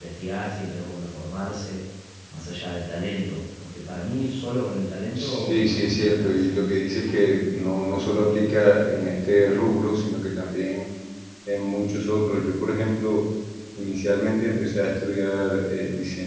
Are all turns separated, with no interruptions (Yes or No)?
No